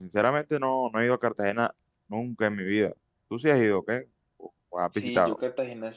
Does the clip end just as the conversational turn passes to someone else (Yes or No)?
Yes